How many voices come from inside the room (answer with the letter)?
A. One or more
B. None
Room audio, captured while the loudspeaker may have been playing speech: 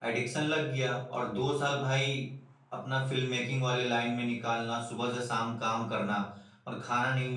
A